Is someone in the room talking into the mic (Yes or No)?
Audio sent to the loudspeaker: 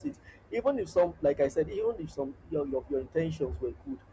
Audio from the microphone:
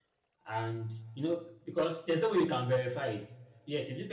Yes